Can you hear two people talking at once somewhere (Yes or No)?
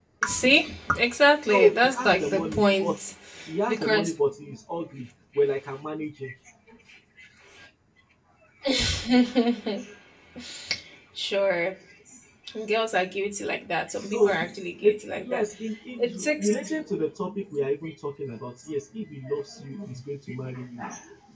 Yes